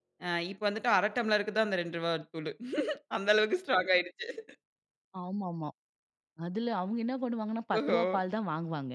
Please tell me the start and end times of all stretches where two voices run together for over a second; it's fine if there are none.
none

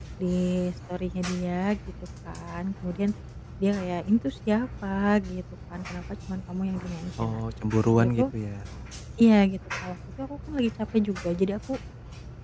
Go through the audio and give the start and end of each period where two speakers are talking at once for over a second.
none

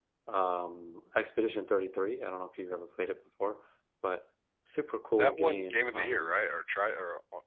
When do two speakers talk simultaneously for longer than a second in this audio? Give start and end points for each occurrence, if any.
5.2-6.5

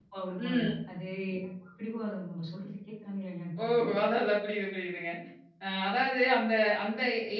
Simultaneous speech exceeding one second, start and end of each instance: none

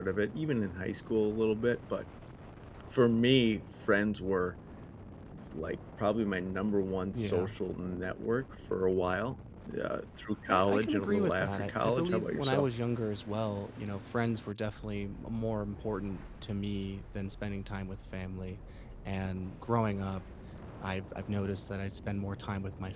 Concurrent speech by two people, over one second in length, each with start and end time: 10.5-12.7

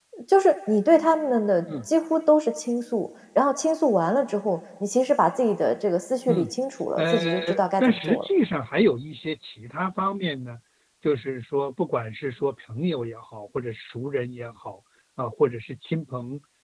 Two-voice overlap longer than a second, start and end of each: 7.0-8.3

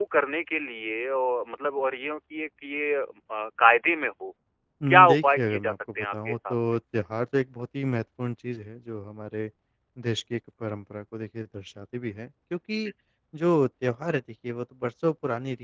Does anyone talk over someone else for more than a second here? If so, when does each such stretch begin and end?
4.9-6.5

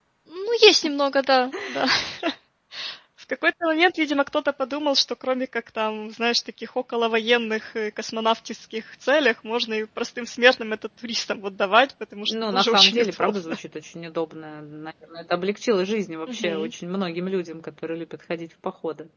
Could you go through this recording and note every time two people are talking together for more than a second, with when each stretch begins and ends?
12.3-13.6

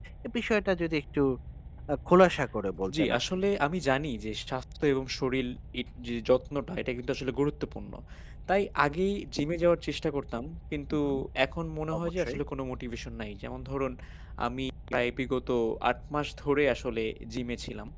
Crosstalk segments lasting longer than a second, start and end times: none

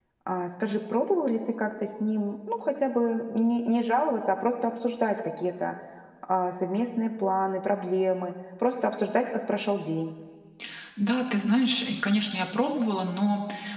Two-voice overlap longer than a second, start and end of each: none

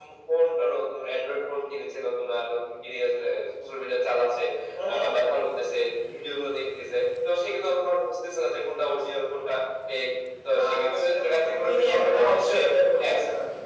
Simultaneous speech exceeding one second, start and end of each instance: 10.5-12.6

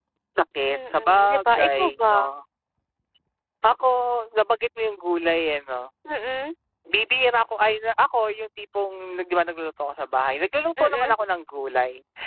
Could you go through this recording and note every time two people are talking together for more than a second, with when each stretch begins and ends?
0.7-2.3

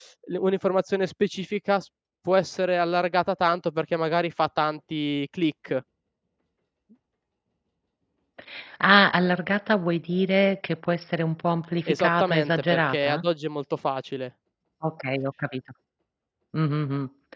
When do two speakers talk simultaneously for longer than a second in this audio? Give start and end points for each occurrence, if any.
11.9-13.2

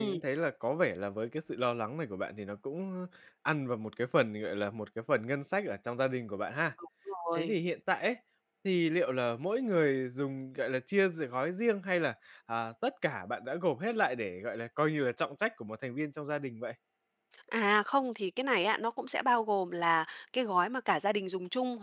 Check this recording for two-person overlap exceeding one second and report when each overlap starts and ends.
none

